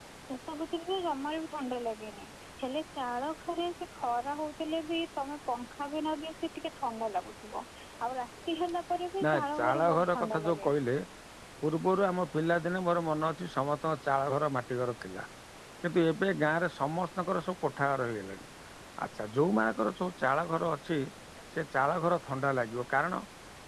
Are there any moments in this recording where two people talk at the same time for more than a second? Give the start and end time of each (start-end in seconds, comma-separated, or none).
9.3-10.7